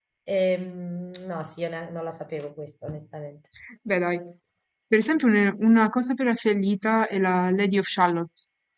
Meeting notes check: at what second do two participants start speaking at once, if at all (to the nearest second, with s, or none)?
none